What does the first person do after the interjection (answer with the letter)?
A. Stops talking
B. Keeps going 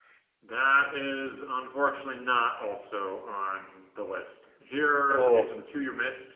B